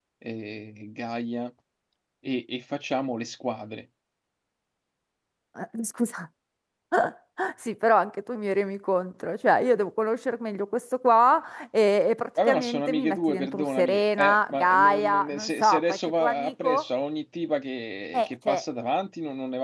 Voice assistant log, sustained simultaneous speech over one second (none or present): present